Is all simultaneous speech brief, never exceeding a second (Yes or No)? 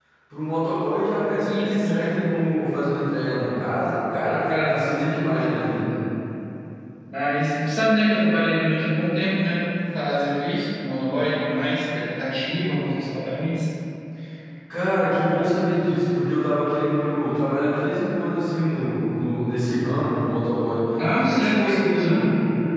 No